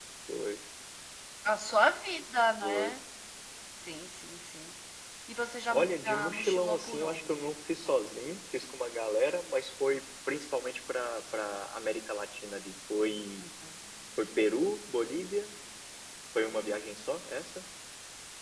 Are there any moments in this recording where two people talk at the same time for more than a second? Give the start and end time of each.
5.7-7.5

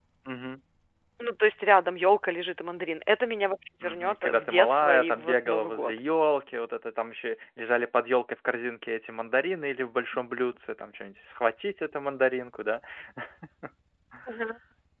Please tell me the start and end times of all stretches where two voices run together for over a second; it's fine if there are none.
3.8-6.0

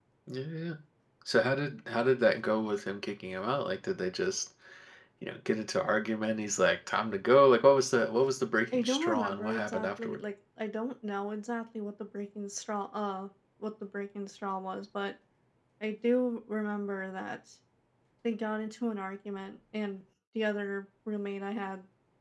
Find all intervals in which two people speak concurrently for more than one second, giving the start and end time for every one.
8.7-10.2

